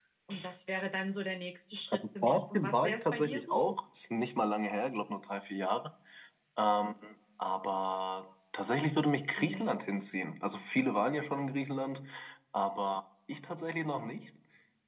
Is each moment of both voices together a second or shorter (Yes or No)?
No